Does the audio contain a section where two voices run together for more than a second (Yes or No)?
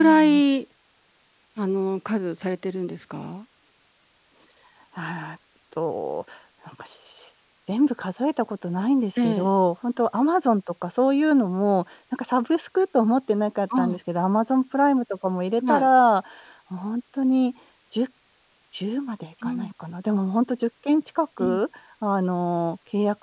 No